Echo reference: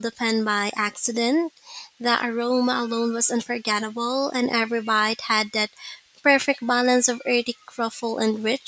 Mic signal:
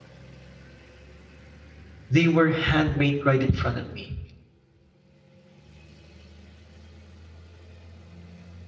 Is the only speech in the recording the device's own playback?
No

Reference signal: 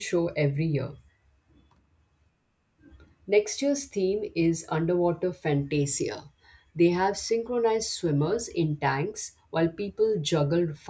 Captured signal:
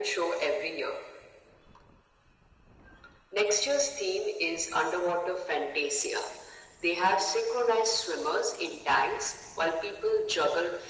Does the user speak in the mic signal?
No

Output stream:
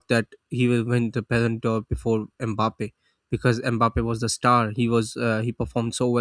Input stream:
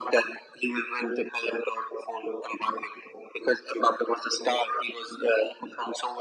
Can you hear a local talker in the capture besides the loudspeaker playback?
No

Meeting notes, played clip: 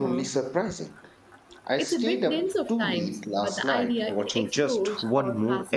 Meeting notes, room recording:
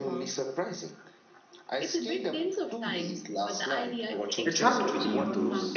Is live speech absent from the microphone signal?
No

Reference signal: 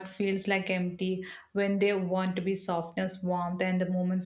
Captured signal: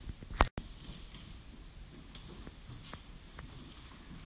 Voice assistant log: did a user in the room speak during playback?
No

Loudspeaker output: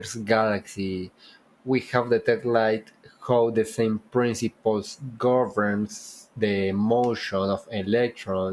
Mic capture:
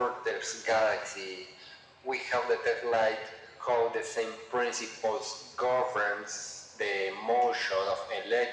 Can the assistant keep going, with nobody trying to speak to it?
Yes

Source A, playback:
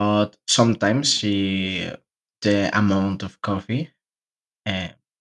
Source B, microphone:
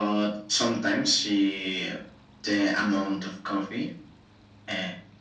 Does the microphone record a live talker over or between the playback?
No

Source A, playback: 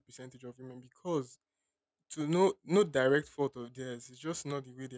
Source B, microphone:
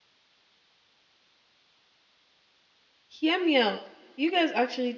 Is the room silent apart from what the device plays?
No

